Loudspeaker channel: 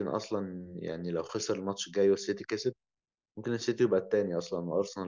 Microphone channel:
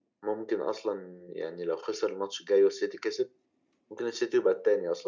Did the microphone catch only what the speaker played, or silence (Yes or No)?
Yes